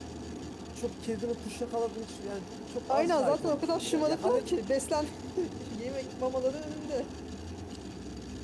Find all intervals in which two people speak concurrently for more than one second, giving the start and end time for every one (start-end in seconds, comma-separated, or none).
2.9-4.6